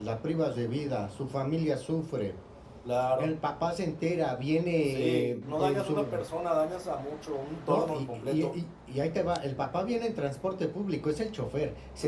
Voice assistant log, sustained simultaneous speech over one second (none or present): present